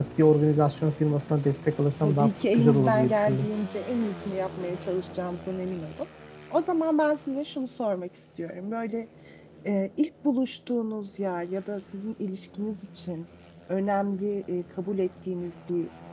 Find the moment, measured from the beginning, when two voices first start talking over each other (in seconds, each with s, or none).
2.0 s